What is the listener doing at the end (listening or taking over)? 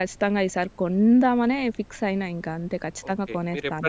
taking over